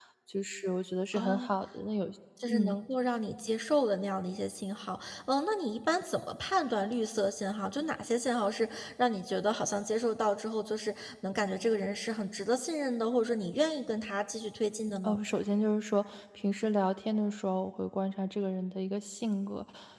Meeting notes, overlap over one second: none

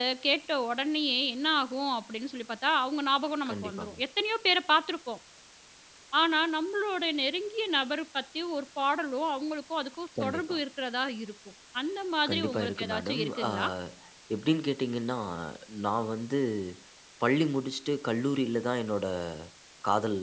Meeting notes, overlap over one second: present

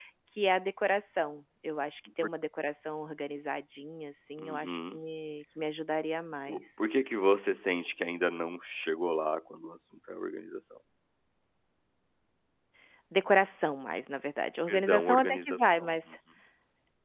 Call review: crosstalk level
present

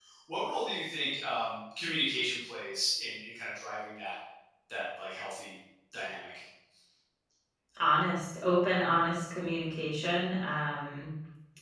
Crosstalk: none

